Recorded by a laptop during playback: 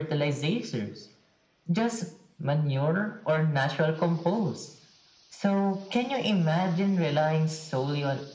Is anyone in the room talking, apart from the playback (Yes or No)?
No